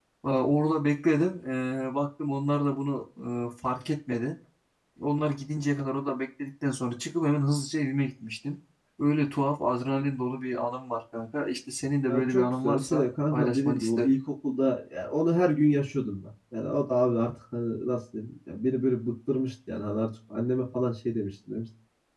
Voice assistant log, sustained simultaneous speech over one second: present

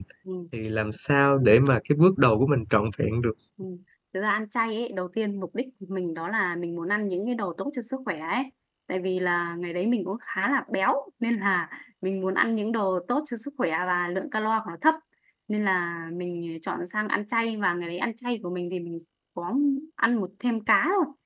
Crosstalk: none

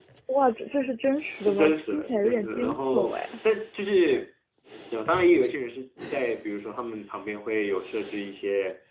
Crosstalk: present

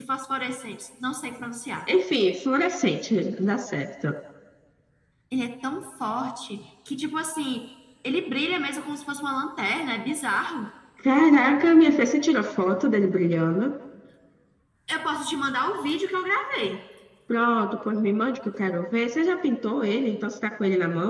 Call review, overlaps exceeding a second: none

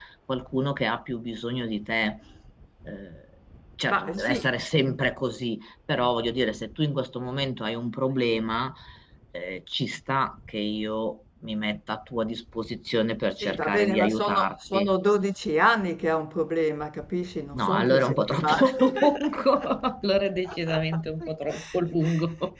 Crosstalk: present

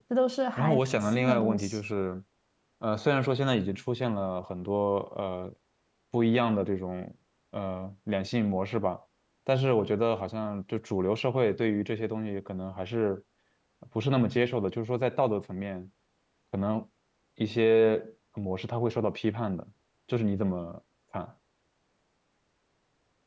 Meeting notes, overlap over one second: present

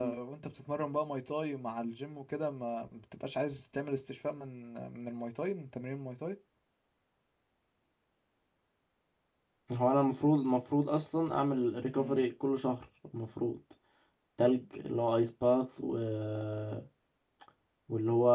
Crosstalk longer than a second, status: none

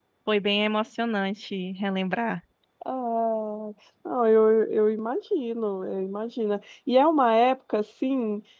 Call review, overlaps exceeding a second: none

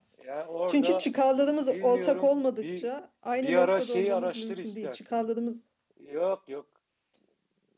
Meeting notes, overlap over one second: present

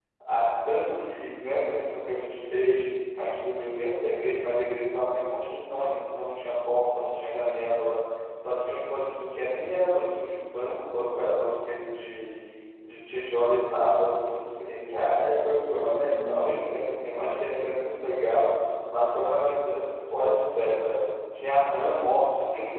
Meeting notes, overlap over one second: present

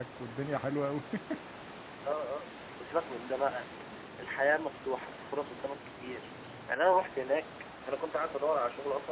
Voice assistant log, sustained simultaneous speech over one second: none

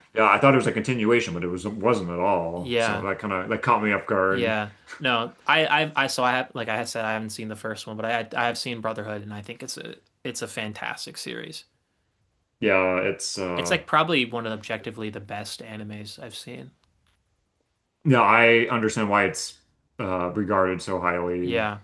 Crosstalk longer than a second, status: none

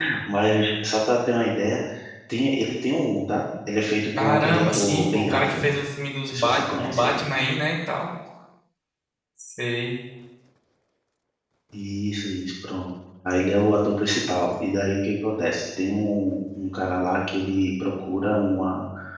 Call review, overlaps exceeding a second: present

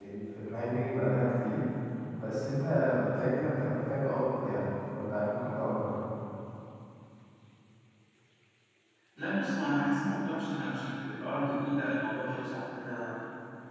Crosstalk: none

